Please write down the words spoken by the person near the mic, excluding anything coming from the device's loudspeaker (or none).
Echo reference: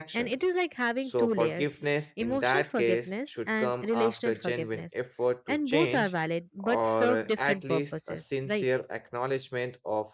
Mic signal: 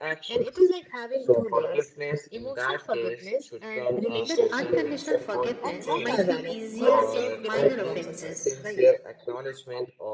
that unconditional forgiveness might be easier in minor offenses